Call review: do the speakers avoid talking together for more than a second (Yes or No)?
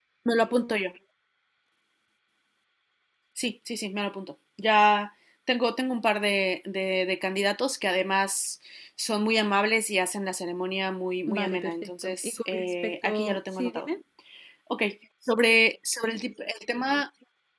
No